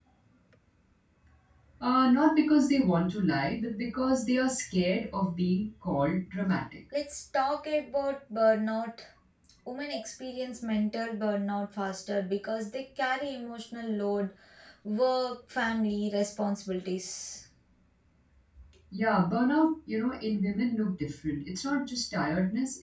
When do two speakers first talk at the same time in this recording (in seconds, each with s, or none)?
none